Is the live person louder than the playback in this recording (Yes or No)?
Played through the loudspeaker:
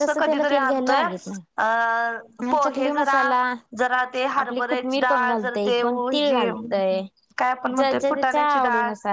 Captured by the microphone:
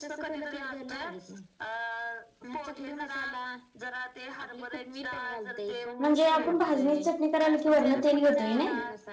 Yes